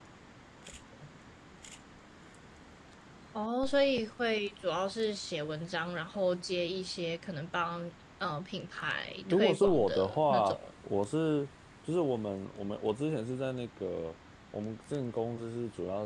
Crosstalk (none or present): present